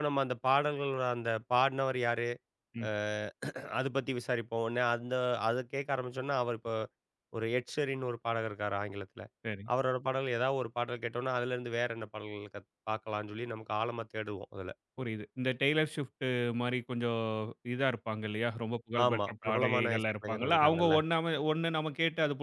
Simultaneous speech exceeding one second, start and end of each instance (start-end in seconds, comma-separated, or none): 19.1-20.9